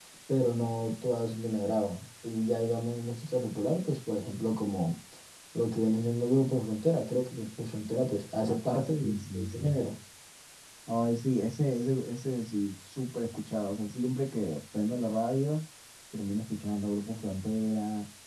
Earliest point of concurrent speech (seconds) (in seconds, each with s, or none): 8.5 s